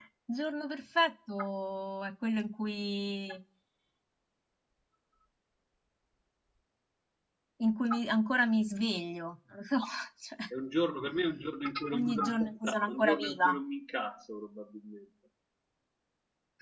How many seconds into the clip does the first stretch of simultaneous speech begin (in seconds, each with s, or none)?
11.9 s